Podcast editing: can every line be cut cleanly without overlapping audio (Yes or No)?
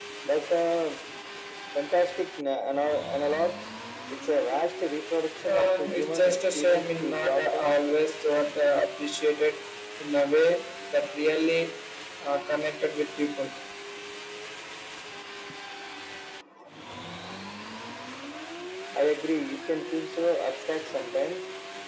No